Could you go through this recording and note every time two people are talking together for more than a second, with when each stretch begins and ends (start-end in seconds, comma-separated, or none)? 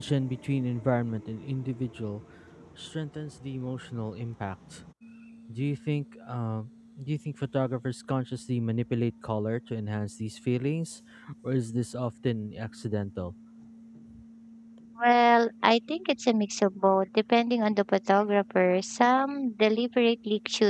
none